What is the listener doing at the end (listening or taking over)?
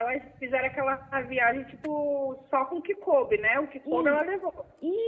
taking over